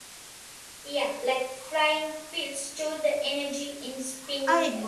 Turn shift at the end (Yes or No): Yes